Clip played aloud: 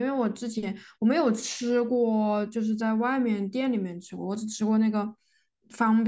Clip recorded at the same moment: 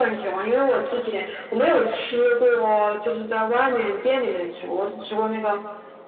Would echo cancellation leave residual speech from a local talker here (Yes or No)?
No